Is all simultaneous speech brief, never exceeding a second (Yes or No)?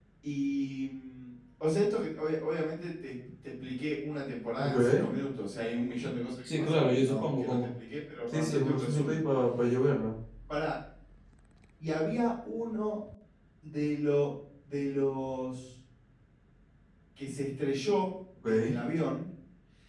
No